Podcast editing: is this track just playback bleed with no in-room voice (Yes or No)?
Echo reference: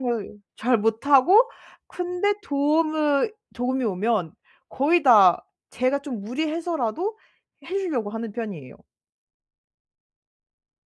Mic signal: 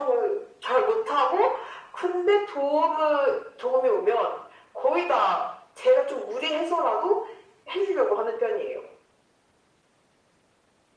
Yes